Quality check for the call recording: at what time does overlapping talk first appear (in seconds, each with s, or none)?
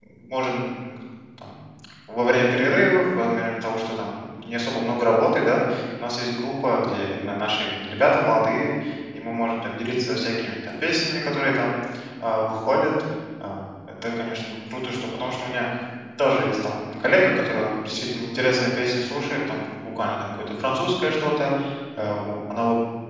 none